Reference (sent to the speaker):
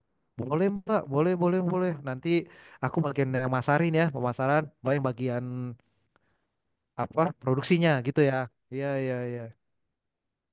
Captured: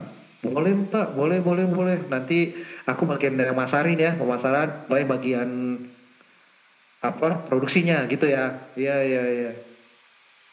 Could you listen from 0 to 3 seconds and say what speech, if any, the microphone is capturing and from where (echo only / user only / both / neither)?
echo only